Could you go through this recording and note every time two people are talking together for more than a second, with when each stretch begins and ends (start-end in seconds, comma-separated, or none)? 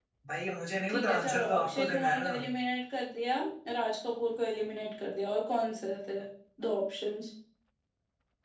0.9-2.3